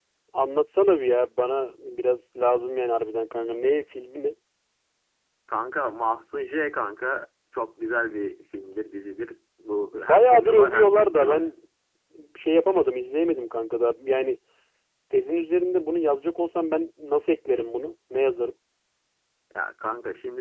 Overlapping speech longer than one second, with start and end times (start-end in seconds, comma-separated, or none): 9.9-11.4